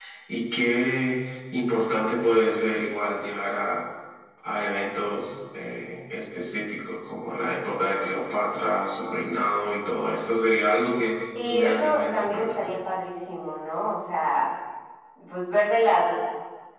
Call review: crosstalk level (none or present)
present